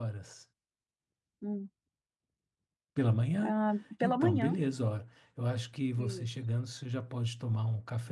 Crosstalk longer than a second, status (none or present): none